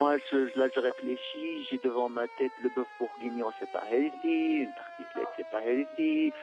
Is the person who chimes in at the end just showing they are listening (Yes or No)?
Yes